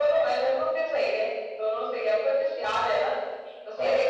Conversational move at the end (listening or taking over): listening